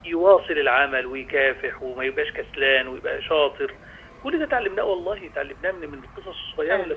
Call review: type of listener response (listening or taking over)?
listening